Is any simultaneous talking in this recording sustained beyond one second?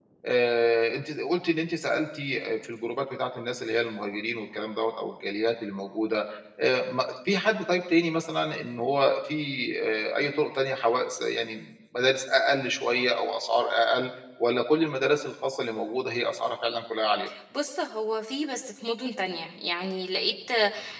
No

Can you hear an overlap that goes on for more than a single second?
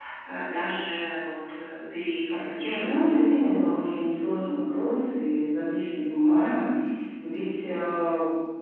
Yes, from 2.8 s

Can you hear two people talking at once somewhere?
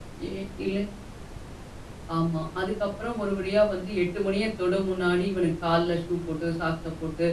No

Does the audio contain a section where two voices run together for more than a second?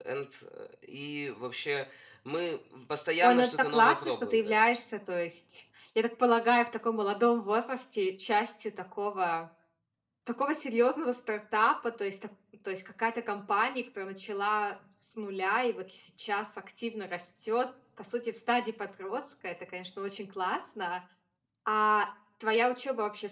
Yes, from 3.2 s

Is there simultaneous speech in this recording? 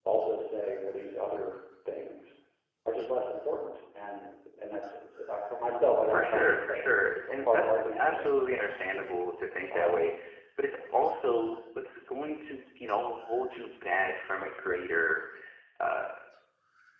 Yes, from 6.1 s

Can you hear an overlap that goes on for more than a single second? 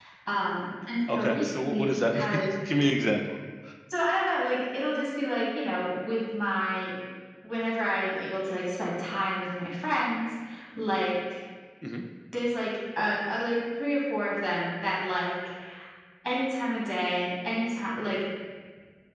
Yes, from 1.2 s

